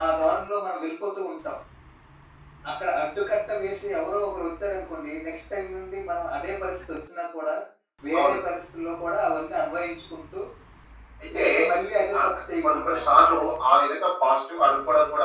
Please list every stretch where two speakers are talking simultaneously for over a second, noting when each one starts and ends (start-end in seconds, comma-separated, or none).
12.2-13.4